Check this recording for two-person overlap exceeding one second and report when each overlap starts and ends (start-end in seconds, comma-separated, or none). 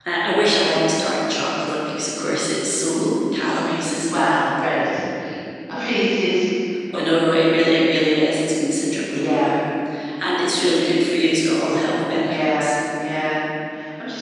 none